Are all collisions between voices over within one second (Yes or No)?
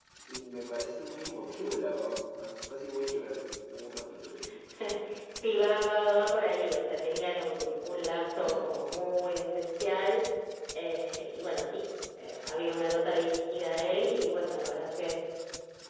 Yes